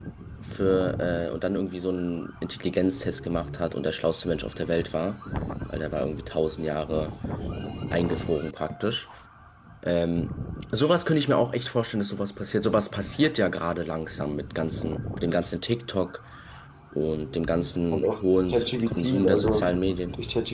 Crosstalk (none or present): present